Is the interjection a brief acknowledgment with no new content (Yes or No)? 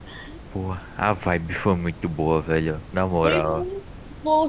No